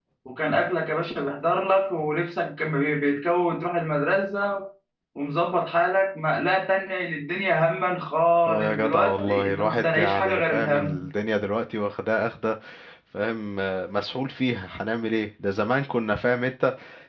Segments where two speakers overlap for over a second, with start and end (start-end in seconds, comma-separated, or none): 8.5-11.1